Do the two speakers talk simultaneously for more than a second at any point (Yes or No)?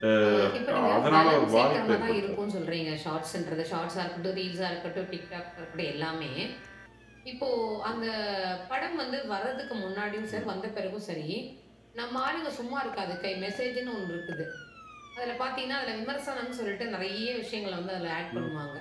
Yes